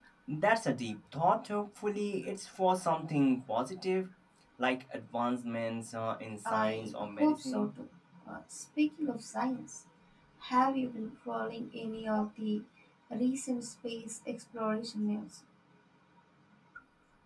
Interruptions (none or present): present